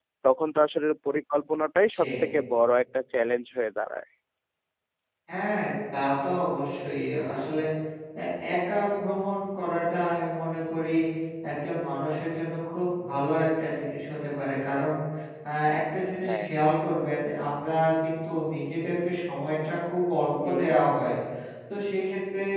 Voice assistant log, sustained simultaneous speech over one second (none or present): none